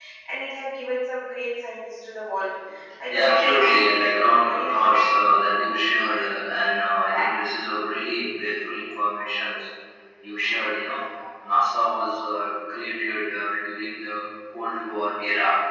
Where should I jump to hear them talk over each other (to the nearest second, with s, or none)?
3 s